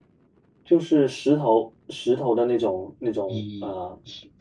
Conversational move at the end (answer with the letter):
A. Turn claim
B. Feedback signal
A